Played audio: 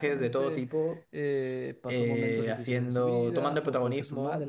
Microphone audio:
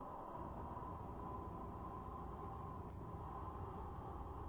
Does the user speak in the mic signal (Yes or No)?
No